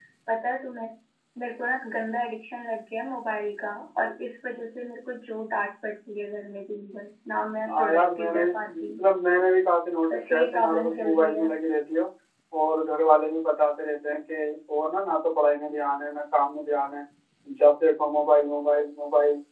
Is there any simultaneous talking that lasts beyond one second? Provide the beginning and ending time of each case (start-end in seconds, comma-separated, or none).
7.7-8.9, 10.1-11.4